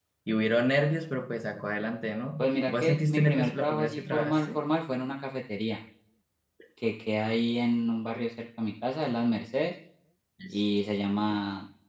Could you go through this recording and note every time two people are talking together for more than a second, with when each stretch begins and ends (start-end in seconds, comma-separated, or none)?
2.4-4.6